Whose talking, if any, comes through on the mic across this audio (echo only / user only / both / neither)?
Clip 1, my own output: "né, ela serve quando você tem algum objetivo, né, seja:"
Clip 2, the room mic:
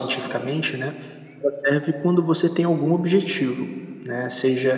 echo only